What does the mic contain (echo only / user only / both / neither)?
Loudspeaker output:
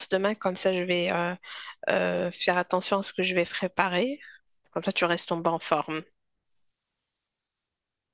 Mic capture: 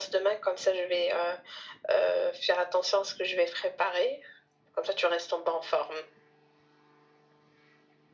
echo only